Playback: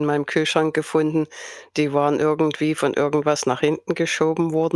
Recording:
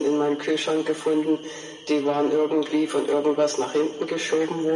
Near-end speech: none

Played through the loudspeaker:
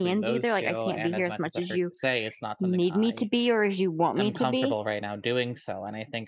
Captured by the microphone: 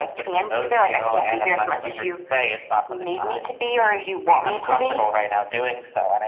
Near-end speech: none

